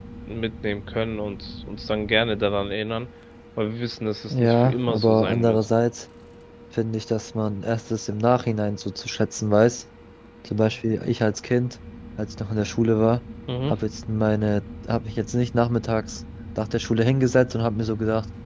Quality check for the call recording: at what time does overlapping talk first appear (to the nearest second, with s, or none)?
4 s